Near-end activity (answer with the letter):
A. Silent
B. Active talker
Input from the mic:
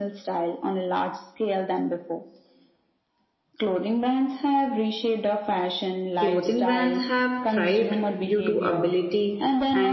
B